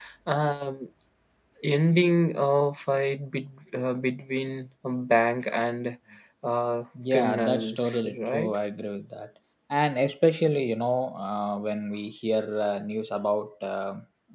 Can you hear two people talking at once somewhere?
Yes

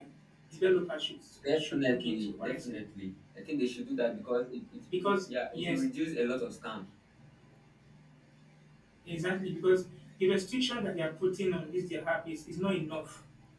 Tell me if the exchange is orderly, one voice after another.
No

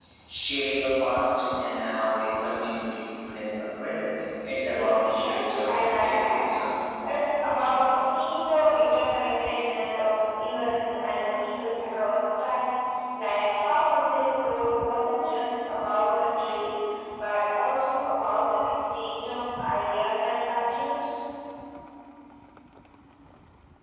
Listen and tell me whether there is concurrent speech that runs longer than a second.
Yes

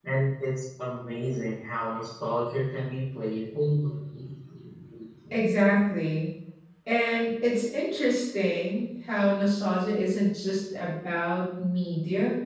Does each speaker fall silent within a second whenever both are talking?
Yes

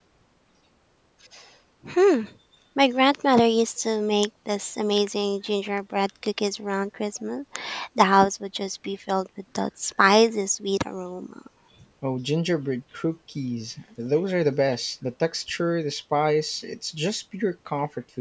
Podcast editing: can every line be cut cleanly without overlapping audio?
Yes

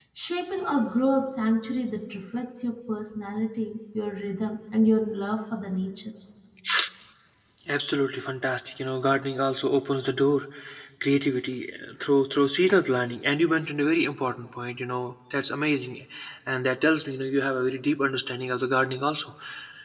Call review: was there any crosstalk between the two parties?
No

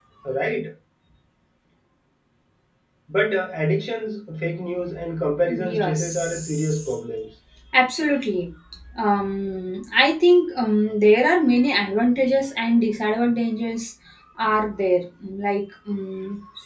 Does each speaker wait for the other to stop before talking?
No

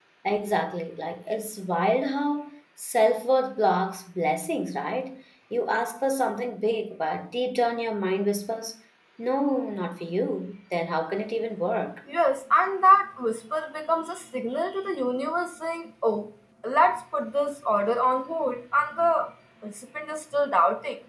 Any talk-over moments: No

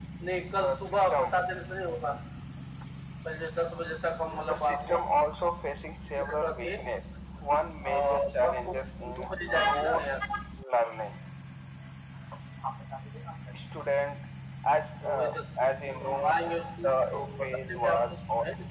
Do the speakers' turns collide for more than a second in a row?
Yes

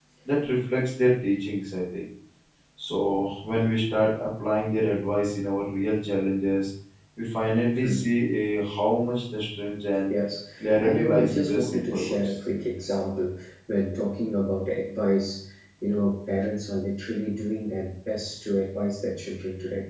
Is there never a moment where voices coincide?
No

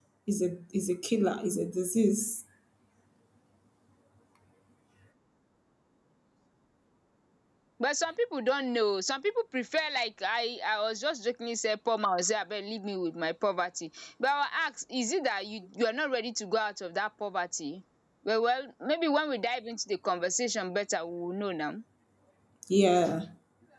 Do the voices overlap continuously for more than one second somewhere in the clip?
No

